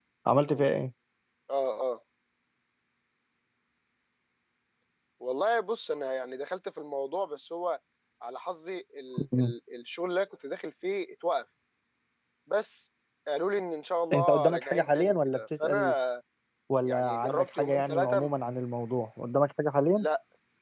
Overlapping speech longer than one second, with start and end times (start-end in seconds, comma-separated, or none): 14.1-15.9, 16.9-18.3